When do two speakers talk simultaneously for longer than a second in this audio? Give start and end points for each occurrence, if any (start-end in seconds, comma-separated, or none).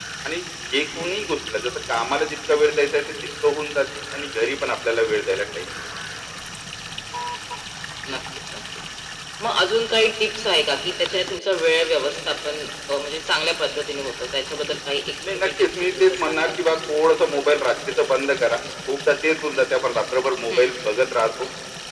15.3-16.7